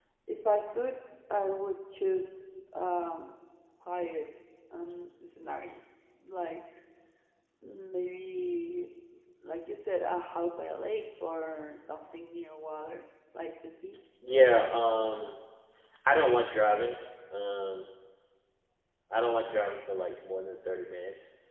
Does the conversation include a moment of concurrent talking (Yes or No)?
No